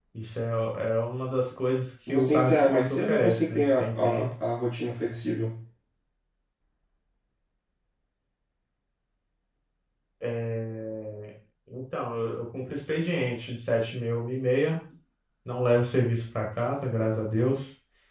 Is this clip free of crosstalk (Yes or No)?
No